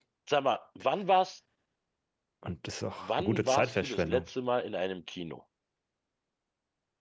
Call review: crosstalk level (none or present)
present